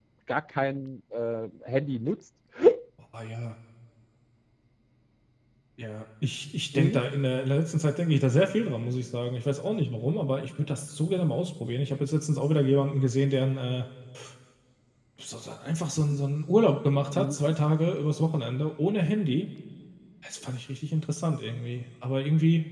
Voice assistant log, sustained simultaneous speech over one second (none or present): none